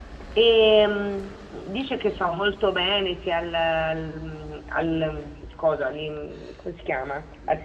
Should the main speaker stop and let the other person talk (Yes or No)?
No